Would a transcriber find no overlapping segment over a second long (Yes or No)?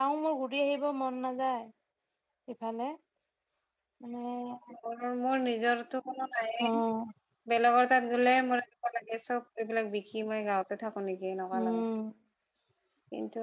Yes